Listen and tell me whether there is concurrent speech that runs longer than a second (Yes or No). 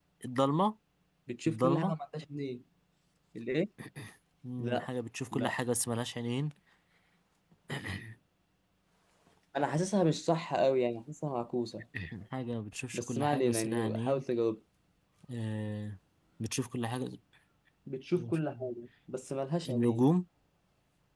Yes